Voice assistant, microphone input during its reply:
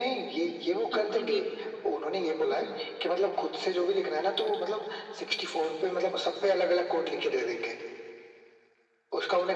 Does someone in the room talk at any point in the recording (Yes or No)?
Yes